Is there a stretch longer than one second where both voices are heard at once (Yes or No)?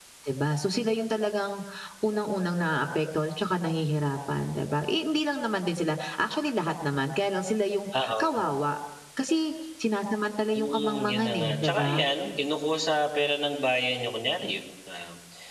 Yes